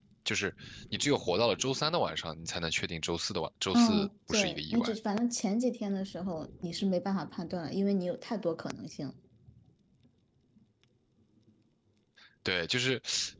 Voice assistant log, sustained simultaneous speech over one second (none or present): present